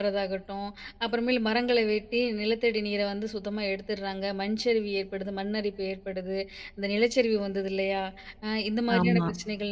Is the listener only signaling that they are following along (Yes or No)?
Yes